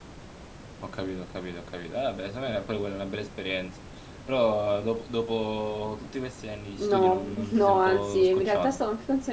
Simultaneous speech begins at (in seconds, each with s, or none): 6.8 s